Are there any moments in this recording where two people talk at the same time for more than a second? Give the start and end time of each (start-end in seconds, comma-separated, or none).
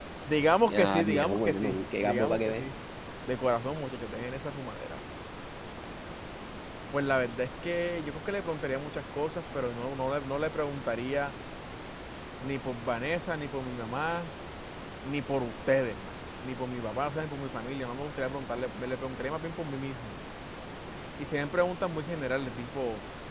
0.7-2.6